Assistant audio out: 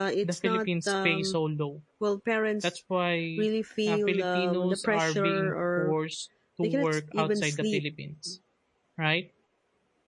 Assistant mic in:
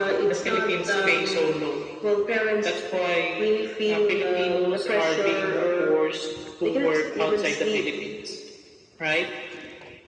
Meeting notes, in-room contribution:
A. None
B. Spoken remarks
A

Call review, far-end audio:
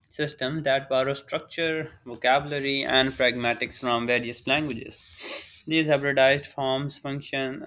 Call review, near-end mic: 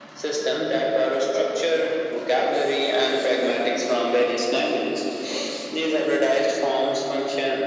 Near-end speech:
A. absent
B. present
A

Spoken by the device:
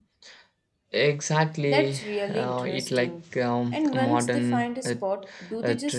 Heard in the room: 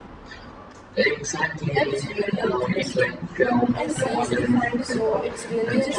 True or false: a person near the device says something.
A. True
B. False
A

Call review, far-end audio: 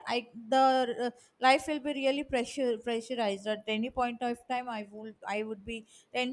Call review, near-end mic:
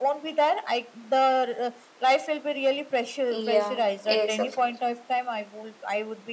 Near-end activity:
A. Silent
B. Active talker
B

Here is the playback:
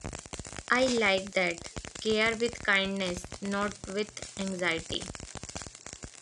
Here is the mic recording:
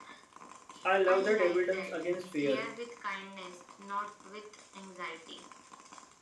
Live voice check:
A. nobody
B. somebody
B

